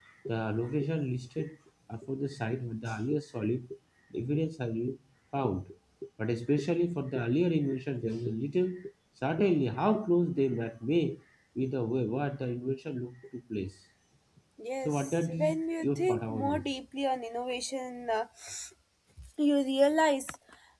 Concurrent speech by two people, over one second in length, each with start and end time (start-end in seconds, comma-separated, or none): 14.8-16.7